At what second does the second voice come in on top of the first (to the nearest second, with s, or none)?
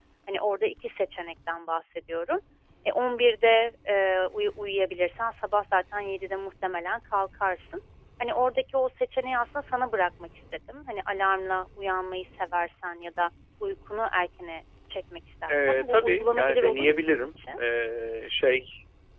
15 s